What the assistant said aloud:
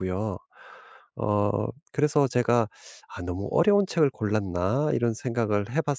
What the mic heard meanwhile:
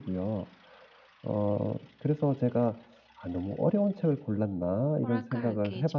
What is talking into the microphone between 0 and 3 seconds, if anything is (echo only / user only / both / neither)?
echo only